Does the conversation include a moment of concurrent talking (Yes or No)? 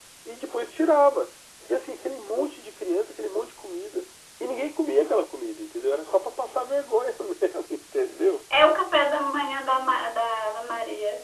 No